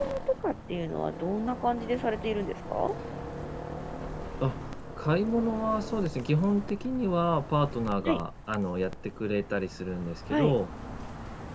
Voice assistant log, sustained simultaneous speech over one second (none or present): none